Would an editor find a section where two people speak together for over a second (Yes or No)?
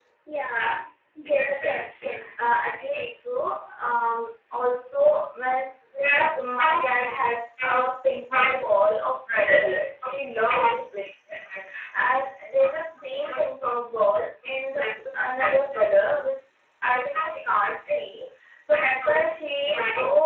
No